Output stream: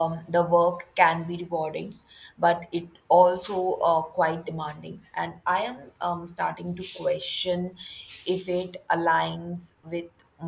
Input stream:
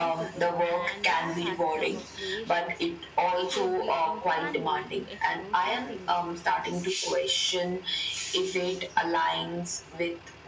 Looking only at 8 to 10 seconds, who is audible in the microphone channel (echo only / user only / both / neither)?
echo only